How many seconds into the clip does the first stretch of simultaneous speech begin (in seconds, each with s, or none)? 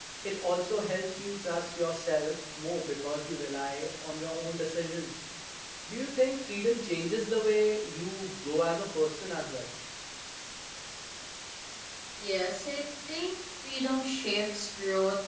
none